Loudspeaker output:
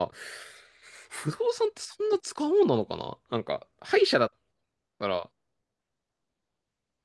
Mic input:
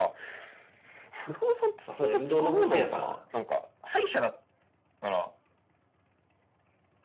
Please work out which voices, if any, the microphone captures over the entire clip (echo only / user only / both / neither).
both